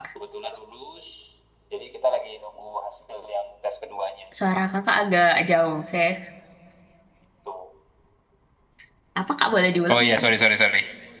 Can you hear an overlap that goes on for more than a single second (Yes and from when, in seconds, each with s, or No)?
No